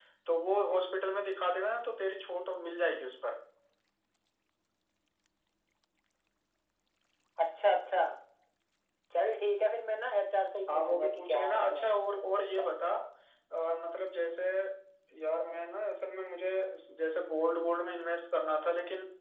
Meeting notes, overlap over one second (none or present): present